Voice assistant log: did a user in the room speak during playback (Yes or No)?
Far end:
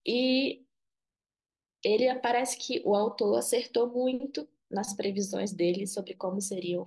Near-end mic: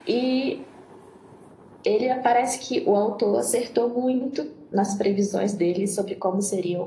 No